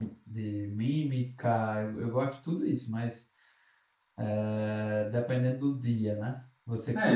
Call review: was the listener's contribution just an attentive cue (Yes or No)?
No